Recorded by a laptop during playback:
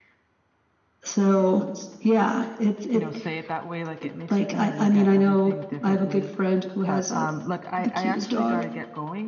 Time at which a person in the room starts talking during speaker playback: 2.9 s

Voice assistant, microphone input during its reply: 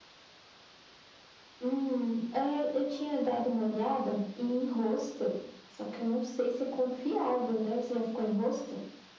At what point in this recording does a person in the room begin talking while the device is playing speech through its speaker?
none

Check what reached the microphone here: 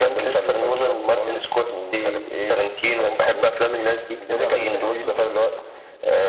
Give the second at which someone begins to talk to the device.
4.3 s

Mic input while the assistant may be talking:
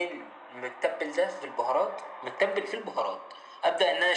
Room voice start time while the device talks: none

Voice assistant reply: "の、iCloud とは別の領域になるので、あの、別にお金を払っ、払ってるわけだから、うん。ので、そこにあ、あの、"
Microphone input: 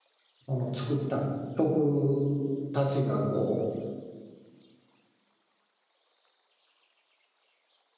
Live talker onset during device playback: 0.5 s

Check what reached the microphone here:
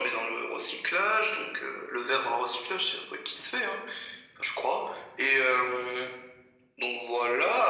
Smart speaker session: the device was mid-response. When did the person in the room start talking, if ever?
none

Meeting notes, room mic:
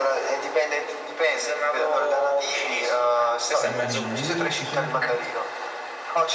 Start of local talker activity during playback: 3.6 s

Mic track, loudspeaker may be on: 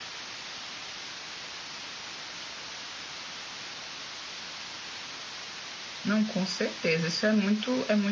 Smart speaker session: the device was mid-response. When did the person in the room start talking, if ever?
6.0 s

